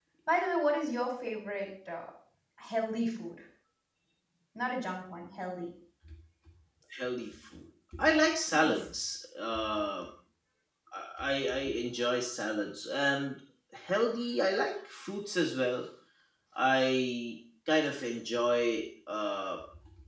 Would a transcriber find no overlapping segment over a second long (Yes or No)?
Yes